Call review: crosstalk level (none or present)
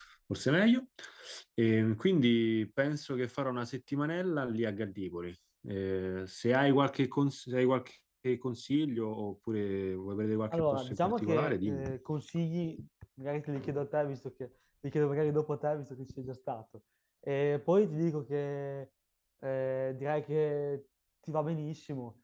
present